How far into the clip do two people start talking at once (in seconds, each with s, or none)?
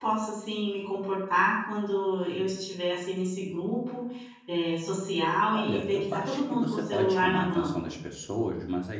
5.5 s